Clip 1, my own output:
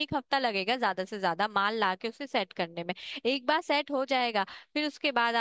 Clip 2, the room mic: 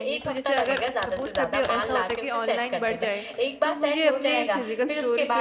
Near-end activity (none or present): present